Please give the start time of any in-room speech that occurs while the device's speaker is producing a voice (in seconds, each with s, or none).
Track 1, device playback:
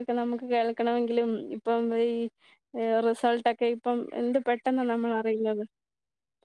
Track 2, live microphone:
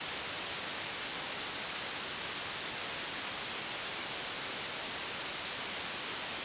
none